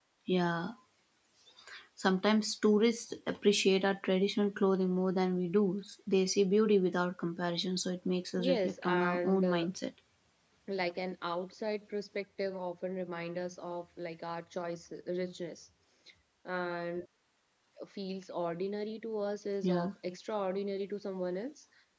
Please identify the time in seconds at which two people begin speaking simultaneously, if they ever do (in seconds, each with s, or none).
8.4 s